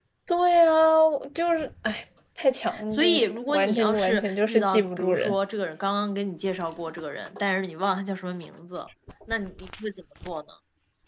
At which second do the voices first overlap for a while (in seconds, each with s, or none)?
2.7 s